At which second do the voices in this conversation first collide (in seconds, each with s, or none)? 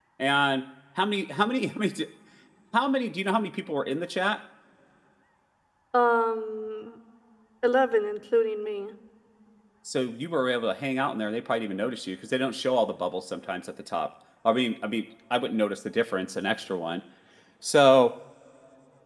none